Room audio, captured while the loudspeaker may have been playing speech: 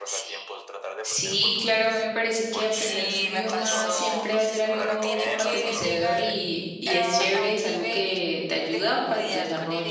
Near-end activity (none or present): present